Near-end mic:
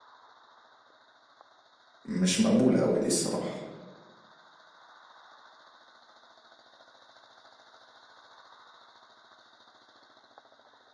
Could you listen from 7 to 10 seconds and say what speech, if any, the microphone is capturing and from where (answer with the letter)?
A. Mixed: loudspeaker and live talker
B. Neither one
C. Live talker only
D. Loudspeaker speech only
B